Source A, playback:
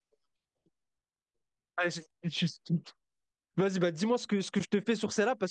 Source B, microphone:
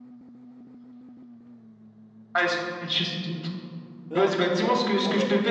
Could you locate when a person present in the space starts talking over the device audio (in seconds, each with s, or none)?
4.1 s